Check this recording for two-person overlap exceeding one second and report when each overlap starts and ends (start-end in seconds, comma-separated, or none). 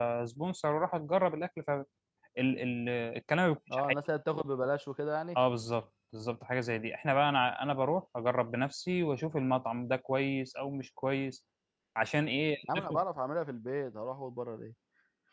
none